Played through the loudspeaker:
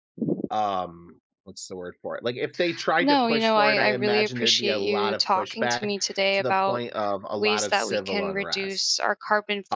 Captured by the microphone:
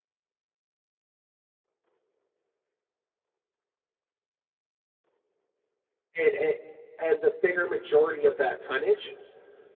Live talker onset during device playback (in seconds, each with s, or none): 6.2 s